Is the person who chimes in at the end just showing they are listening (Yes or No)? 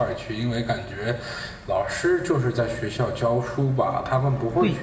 No